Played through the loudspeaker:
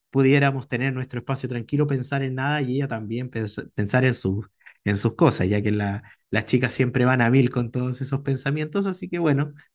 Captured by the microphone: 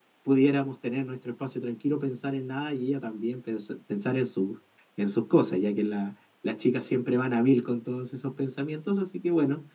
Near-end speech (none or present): none